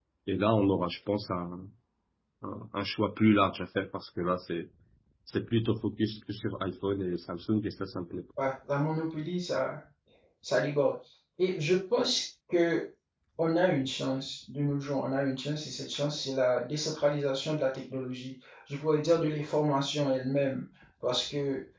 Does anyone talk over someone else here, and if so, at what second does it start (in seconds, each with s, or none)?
none